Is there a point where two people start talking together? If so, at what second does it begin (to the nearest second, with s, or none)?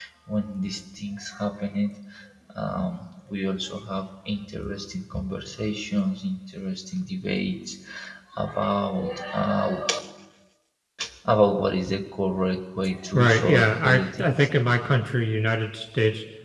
13 s